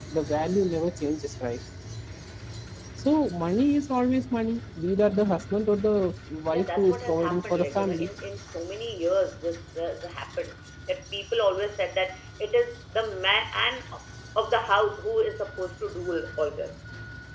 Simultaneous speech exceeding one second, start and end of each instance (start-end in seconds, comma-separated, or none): 6.5-8.1